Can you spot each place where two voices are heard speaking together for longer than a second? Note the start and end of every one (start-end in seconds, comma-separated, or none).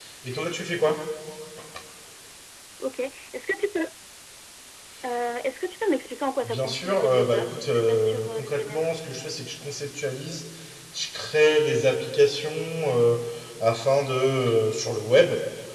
6.4-8.8